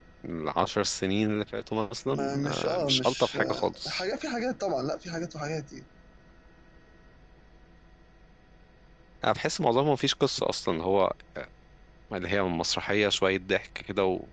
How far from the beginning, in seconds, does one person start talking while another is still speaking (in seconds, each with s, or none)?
2.1 s